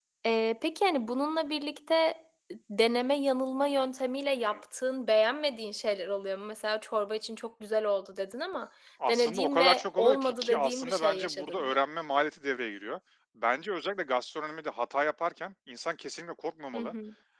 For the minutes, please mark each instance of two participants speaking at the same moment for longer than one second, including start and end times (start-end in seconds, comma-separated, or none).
9.1-11.8